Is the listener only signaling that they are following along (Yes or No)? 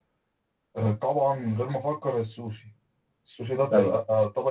Yes